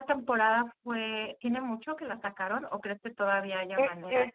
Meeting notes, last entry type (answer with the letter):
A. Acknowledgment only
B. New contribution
B